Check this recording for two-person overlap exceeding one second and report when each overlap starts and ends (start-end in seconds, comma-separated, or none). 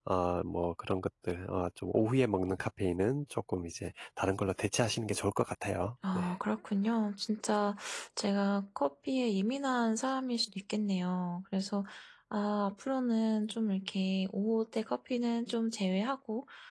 none